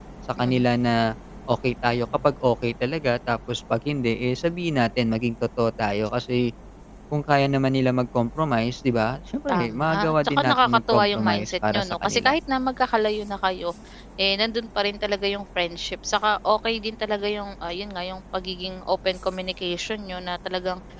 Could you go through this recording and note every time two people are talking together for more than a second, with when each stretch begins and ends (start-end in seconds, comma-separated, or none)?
9.5-12.4